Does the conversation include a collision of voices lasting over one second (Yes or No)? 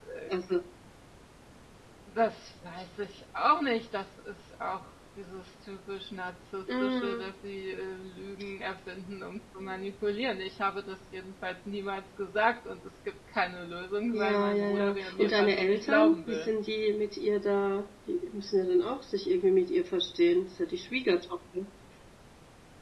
Yes